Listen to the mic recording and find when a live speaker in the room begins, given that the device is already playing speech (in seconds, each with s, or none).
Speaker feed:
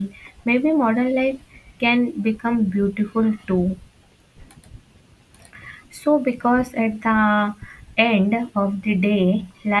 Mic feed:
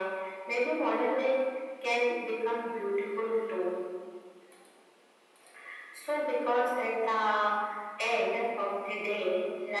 none